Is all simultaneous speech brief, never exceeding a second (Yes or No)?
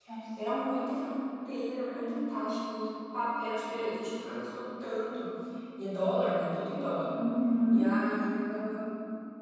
Yes